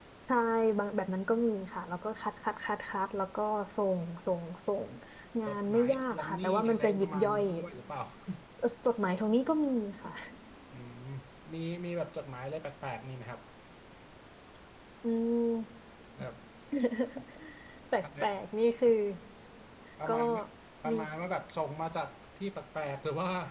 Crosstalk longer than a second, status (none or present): present